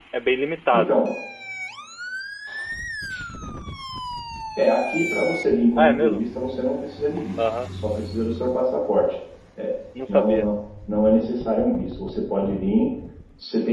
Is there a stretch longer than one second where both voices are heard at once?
No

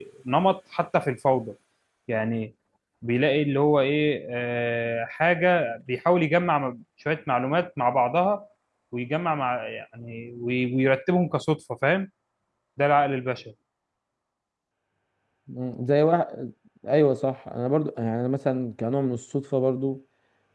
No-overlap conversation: Yes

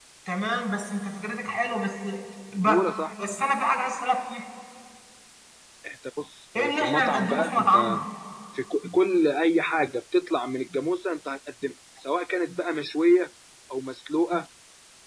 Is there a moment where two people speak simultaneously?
Yes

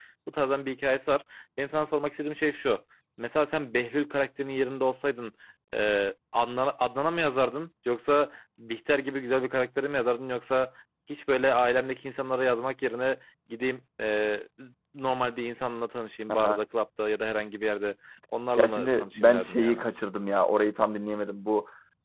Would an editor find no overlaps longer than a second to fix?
No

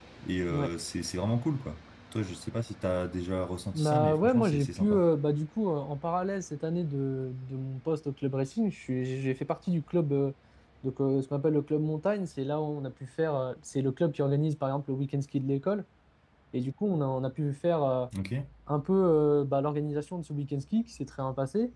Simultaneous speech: Yes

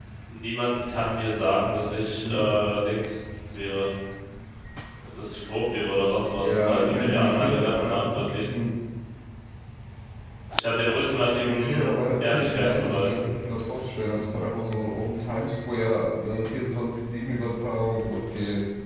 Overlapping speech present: Yes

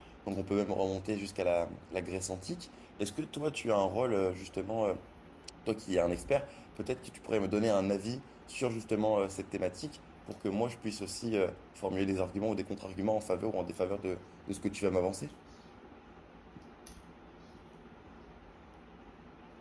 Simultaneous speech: No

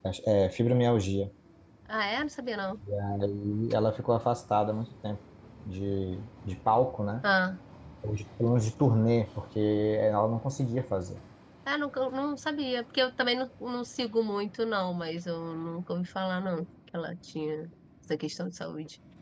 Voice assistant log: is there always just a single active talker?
Yes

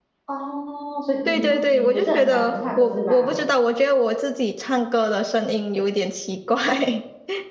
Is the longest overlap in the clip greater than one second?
Yes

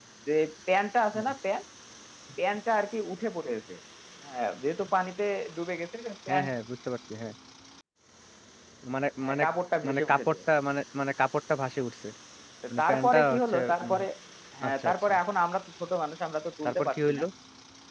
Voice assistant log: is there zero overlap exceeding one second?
No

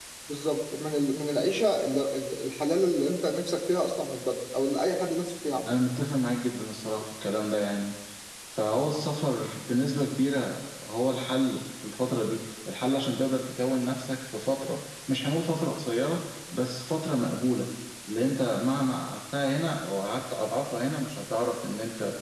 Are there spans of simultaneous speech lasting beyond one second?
No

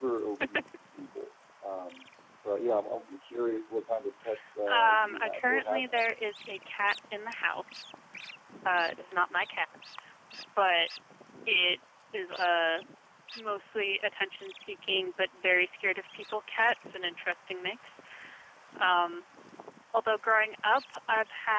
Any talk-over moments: Yes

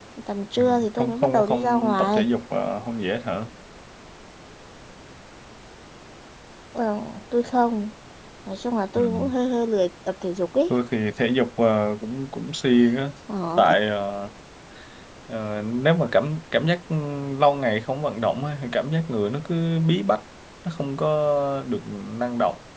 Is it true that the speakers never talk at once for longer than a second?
No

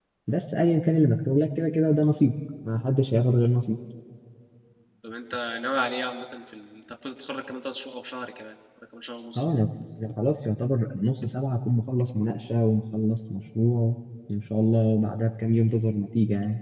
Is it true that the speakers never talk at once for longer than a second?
Yes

